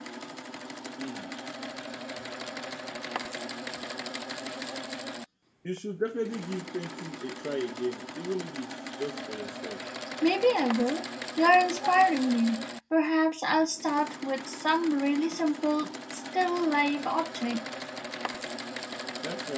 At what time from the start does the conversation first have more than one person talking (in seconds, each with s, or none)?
none